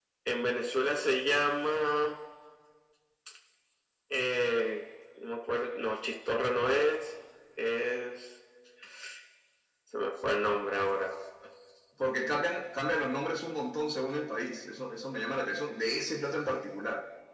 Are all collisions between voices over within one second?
Yes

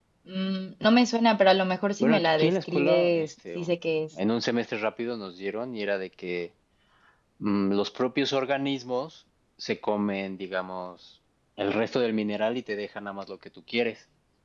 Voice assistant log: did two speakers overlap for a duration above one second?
Yes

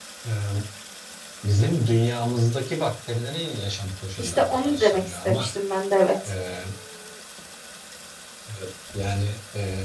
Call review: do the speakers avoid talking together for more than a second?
No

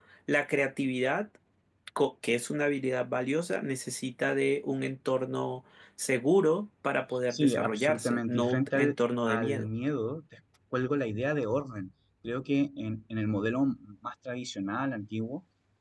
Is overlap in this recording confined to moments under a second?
No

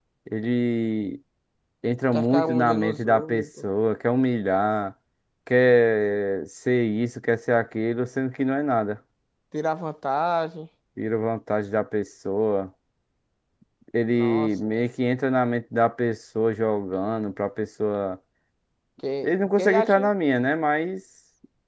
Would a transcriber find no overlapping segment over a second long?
No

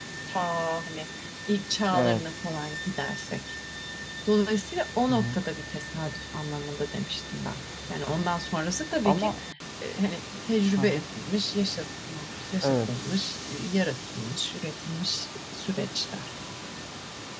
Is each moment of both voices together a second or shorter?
Yes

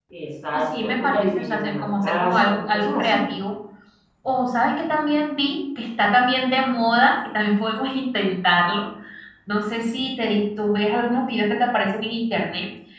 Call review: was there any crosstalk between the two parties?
Yes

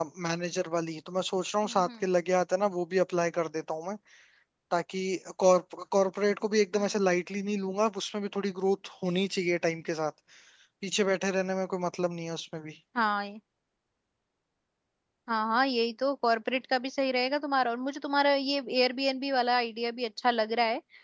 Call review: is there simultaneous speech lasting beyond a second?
No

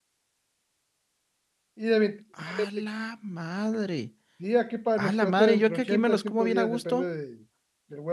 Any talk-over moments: Yes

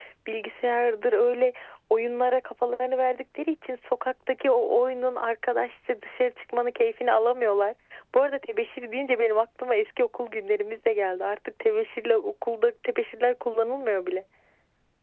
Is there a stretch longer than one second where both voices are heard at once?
No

